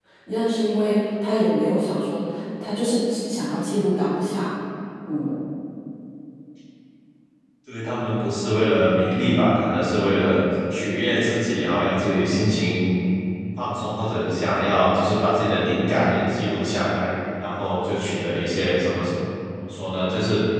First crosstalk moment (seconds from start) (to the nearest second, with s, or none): none